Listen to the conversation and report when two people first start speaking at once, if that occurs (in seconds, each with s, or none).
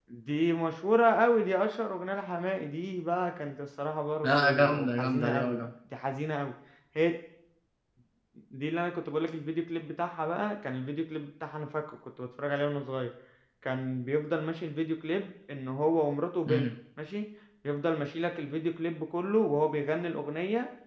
4.2 s